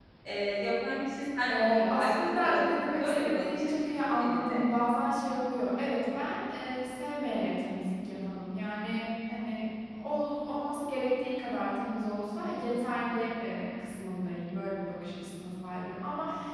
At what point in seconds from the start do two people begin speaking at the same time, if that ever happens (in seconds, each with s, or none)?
1.5 s